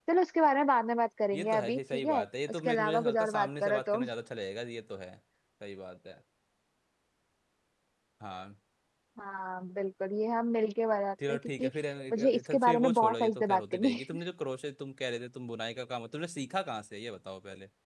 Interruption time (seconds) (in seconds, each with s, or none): 1.3 s